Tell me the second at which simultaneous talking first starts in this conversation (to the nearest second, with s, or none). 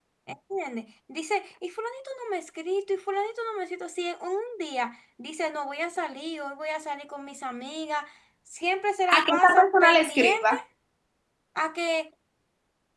9 s